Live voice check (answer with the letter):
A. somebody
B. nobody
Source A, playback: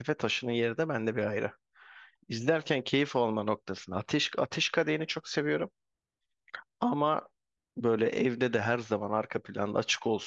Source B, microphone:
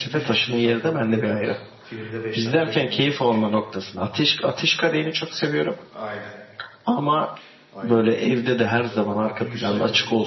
A